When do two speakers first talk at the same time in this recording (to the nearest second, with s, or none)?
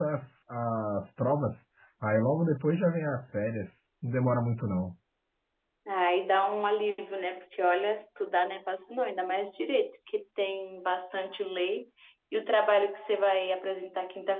none